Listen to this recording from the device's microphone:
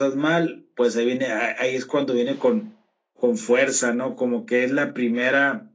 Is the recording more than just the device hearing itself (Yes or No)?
No